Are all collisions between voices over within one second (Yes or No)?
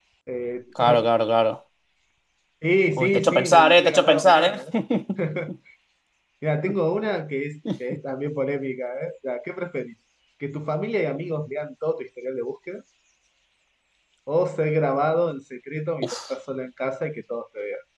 No